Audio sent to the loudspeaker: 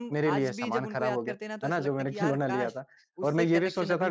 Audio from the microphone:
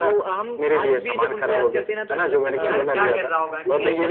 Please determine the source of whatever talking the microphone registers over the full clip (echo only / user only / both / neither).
both